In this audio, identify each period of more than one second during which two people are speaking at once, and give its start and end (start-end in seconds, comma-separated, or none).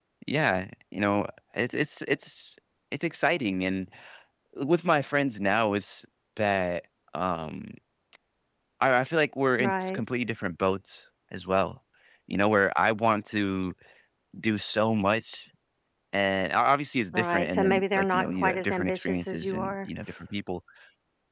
17.1-19.9